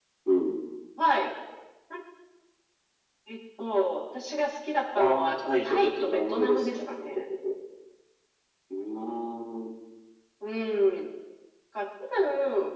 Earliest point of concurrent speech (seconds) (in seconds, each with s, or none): 4.9 s